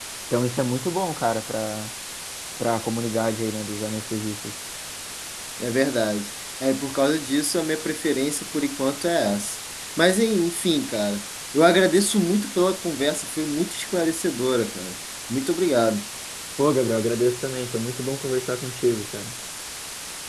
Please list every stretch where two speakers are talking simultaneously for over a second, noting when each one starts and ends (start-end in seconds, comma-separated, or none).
none